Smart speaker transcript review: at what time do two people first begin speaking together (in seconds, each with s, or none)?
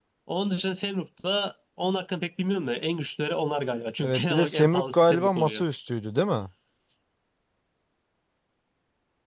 4.0 s